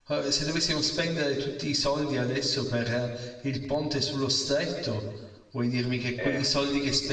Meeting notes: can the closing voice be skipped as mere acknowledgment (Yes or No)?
Yes